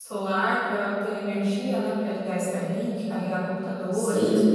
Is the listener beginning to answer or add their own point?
Yes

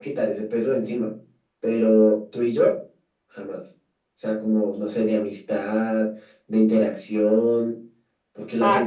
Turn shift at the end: No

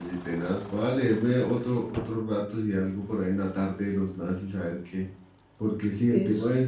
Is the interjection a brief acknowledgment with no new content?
Yes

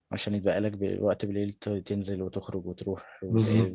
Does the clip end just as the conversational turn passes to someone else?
Yes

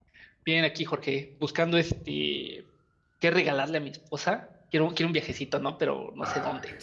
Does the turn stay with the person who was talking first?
No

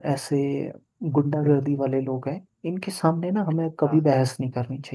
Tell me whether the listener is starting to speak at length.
No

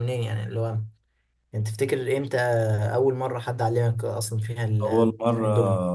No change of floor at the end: No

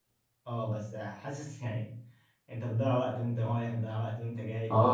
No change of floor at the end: No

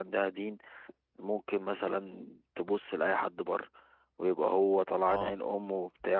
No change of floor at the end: Yes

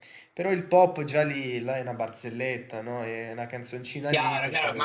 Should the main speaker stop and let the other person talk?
Yes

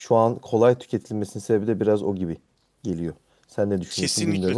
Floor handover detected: Yes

